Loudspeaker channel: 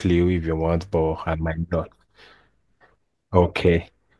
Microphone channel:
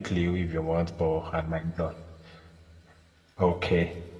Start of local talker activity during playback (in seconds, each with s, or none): none